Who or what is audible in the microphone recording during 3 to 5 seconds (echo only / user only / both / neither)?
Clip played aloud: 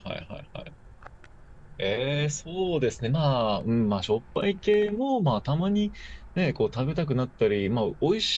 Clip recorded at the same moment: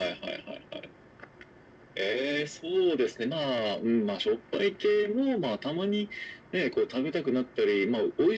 echo only